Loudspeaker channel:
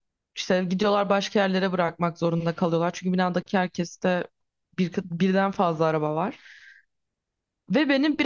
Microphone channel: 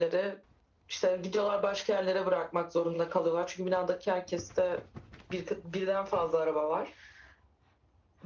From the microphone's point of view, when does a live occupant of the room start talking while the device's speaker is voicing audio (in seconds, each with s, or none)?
none